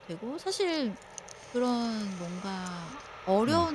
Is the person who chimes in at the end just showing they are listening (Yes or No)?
Yes